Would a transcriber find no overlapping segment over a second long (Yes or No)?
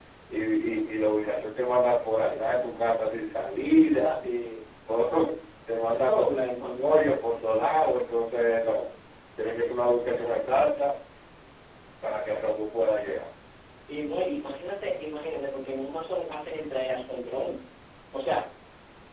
Yes